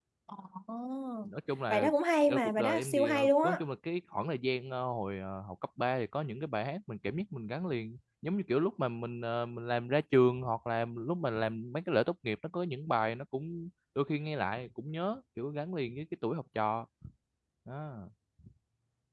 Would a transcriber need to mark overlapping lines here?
Yes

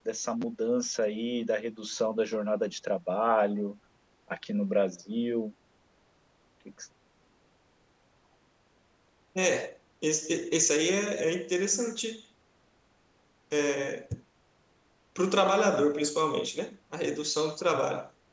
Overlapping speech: No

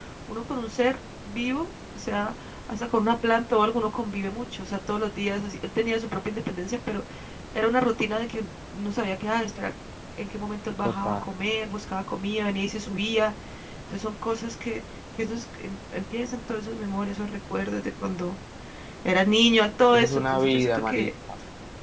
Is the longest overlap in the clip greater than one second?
Yes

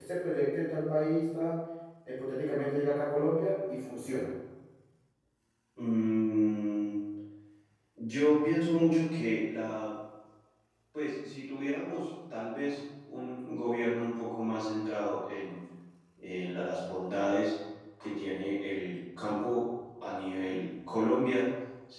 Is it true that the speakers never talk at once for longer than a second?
Yes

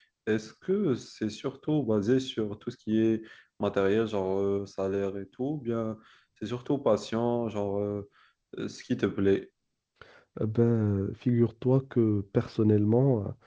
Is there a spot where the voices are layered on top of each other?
No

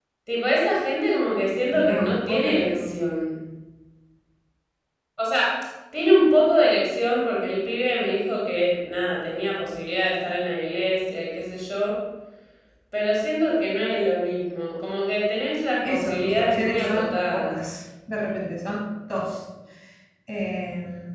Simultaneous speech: Yes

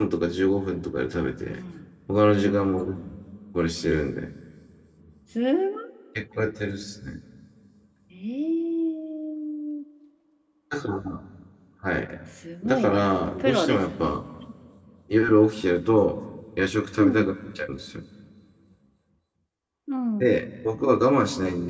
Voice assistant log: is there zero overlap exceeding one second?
No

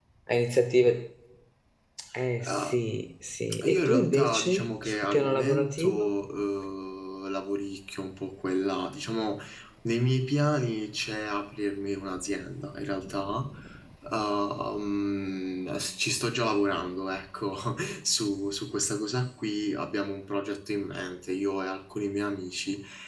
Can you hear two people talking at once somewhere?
Yes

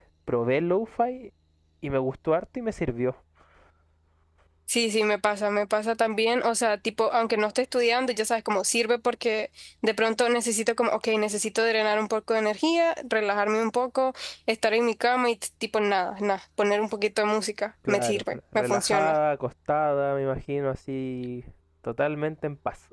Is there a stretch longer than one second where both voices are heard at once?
Yes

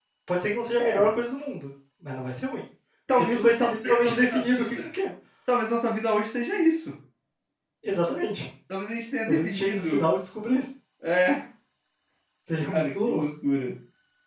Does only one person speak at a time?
No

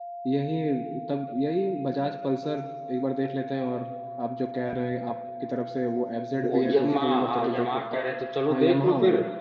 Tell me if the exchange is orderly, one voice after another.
No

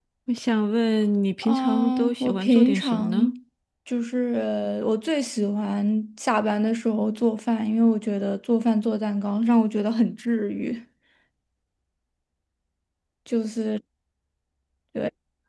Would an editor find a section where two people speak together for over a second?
Yes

